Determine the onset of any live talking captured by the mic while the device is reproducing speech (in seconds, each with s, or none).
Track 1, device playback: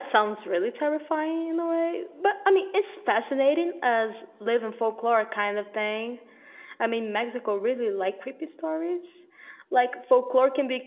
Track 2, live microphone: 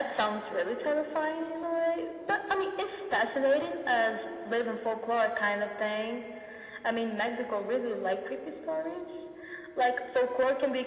none